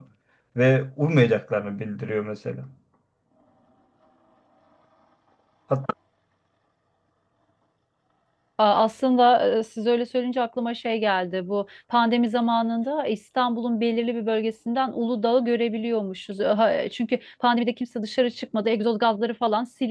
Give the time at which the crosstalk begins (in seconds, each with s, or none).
none